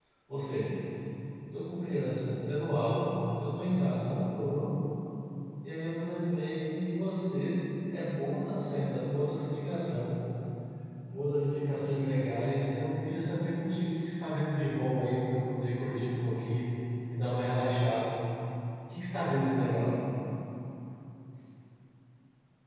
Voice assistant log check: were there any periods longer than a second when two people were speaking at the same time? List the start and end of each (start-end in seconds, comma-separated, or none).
none